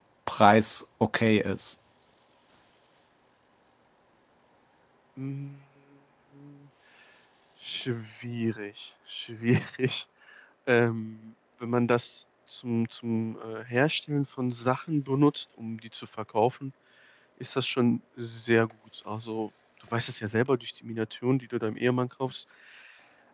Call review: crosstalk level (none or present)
none